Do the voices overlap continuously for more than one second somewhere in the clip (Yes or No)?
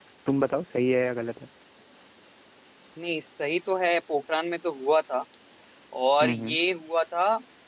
No